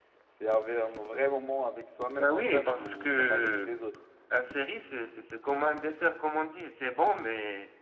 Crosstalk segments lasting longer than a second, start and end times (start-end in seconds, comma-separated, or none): 2.2-3.7